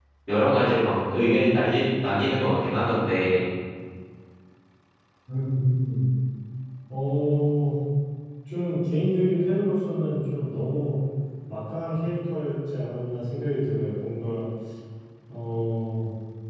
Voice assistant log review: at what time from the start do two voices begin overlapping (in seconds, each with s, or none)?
none